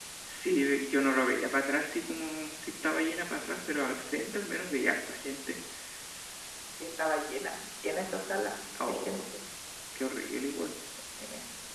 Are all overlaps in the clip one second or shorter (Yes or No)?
Yes